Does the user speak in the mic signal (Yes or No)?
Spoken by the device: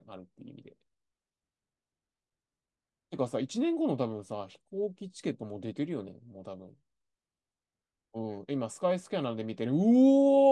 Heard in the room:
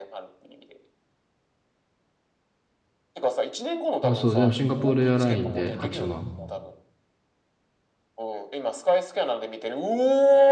Yes